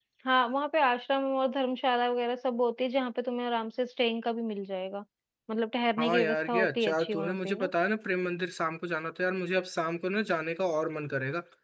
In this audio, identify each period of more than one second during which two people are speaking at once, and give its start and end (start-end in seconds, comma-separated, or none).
6.0-7.7